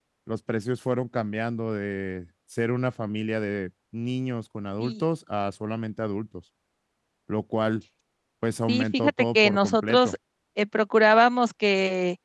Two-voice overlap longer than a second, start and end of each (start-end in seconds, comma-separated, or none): 8.7-10.2